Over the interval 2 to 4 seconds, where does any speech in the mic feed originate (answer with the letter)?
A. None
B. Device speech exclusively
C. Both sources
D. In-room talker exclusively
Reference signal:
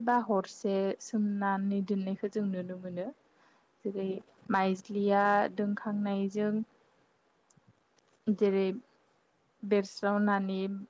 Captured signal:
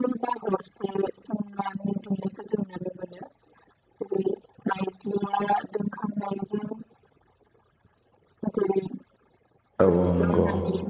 B